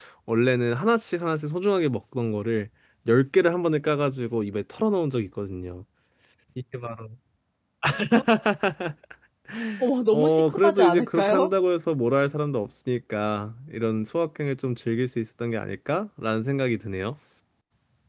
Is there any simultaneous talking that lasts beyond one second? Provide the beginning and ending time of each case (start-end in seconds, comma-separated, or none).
10.1-11.5